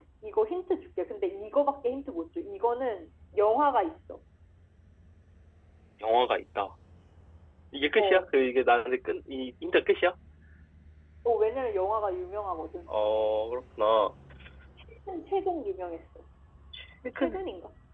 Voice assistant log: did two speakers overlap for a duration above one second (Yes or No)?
No